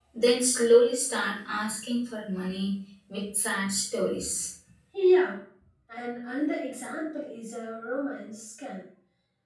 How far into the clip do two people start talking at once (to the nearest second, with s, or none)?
none